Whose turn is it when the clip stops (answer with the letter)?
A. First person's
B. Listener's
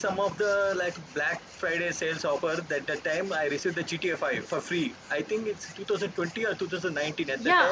B